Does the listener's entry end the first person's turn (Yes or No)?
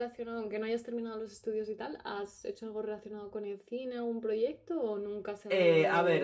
Yes